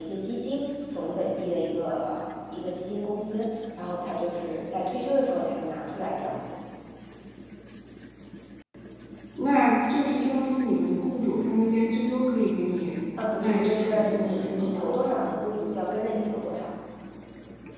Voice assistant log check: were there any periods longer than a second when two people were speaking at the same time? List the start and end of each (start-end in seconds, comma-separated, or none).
13.3-14.7